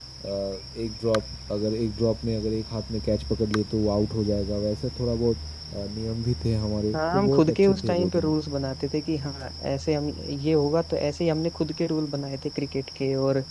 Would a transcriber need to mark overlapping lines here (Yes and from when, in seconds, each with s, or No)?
Yes, from 6.9 s